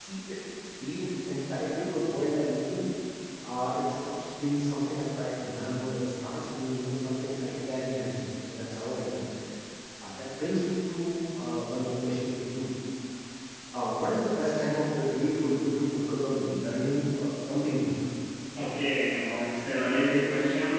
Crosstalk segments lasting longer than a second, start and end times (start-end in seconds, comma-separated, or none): none